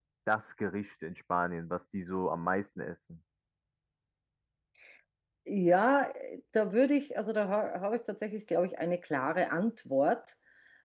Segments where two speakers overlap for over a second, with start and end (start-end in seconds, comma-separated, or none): none